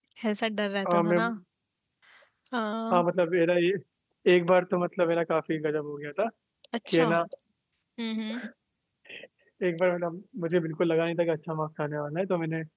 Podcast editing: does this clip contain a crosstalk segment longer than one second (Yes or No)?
No